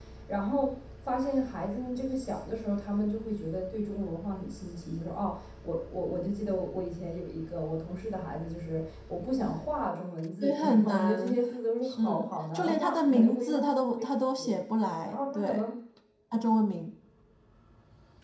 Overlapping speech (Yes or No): Yes